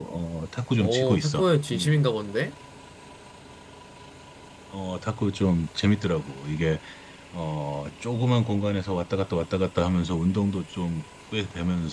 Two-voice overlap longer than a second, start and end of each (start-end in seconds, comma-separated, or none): 0.8-2.0